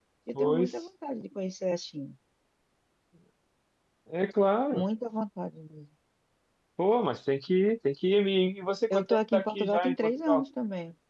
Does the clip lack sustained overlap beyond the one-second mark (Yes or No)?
No